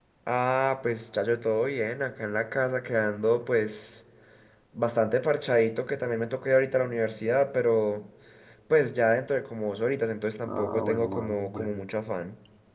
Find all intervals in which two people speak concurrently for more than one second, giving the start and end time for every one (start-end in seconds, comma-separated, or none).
10.5-12.0